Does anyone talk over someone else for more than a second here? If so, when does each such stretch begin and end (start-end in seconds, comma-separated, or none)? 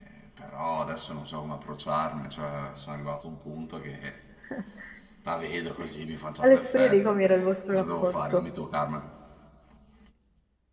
6.4-8.4